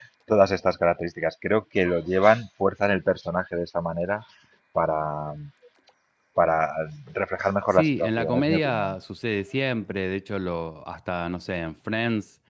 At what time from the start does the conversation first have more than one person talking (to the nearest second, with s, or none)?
8 s